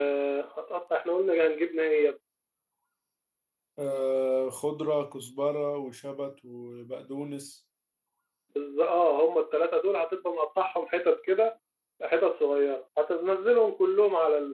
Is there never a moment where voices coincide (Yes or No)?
Yes